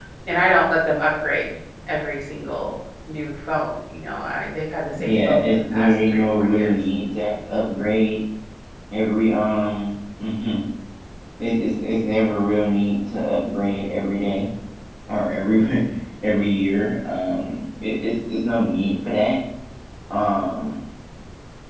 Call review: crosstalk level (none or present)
present